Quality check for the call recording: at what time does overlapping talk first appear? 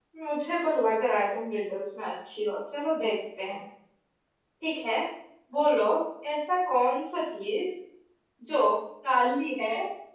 none

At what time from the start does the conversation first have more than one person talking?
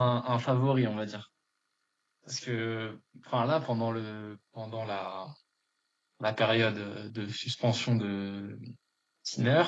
none

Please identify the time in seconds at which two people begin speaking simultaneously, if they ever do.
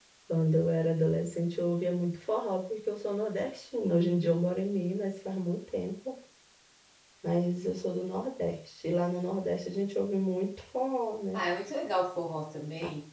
none

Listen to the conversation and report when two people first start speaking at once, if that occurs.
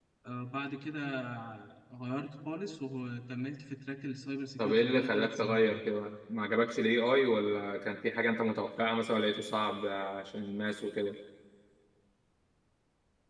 4.6 s

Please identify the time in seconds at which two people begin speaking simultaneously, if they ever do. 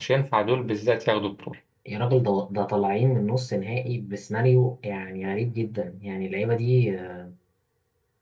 none

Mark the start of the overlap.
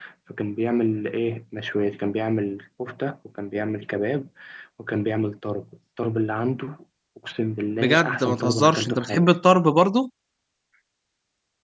7.8 s

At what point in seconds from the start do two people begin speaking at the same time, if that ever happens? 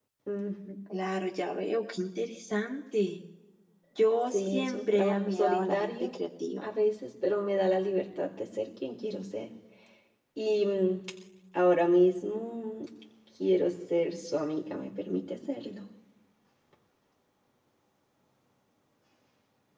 4.3 s

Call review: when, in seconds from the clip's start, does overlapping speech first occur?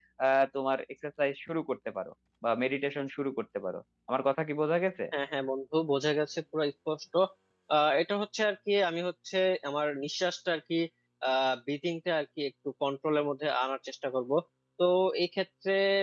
none

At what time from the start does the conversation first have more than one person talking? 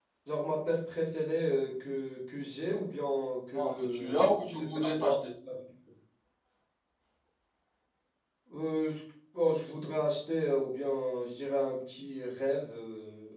3.5 s

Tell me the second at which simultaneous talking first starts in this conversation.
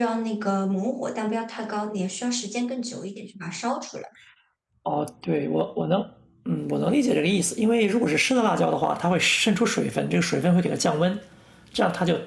none

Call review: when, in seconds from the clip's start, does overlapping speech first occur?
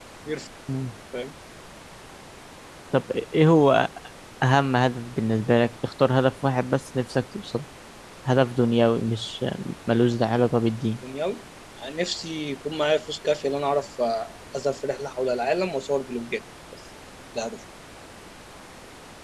none

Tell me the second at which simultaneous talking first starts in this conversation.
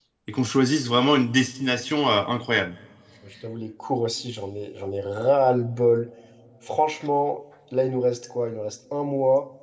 none

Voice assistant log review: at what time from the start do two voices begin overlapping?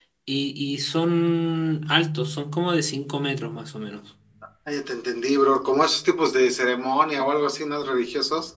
none

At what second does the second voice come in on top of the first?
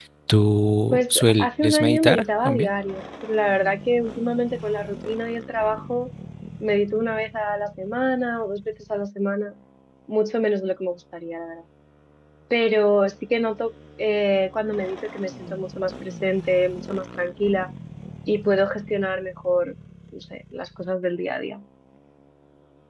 0.9 s

